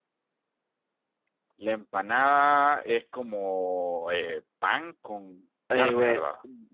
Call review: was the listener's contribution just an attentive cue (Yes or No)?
No